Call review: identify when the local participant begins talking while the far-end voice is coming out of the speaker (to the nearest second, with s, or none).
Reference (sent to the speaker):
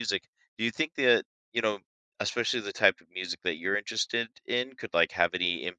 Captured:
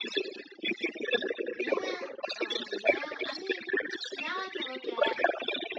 2 s